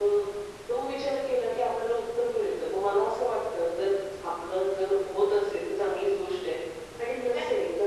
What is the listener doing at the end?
listening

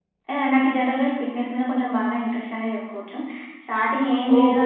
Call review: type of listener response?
listening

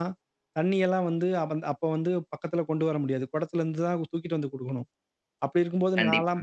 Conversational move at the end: listening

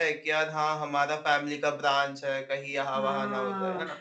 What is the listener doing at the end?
taking over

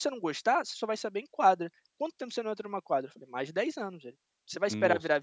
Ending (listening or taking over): listening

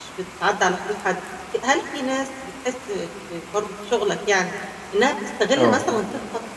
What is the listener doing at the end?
listening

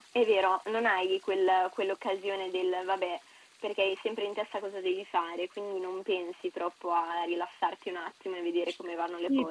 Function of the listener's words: taking over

